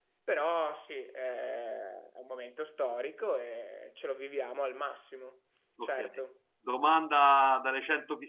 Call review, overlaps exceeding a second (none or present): none